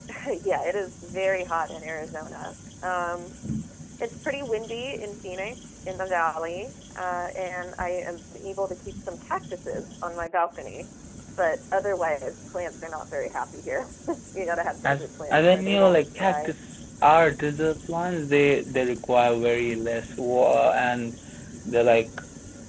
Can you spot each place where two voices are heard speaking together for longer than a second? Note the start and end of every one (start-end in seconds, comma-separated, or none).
14.8-16.5